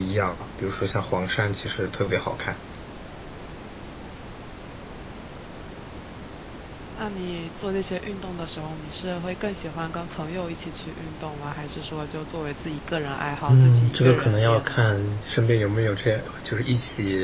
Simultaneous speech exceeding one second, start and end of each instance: 13.5-14.8

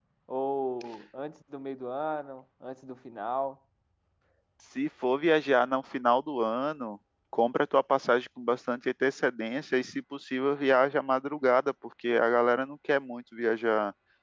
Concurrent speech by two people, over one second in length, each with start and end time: none

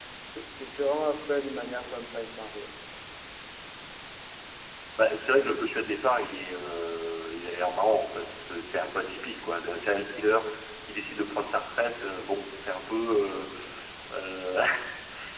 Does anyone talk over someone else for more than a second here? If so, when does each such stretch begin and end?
none

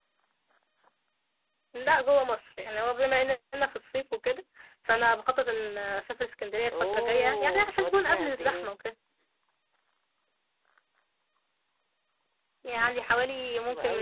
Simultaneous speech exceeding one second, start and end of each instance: 6.7-8.7

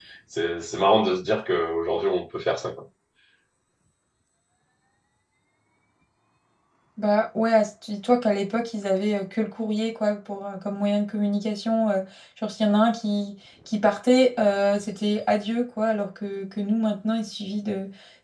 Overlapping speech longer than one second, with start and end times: none

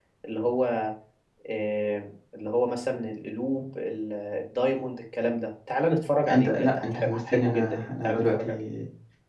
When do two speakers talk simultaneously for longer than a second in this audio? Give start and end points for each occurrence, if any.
6.3-8.6

